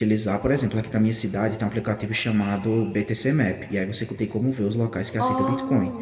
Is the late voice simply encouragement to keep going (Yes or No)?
Yes